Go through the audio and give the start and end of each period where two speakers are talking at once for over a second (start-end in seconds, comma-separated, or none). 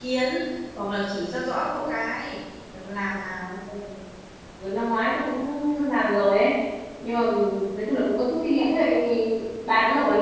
none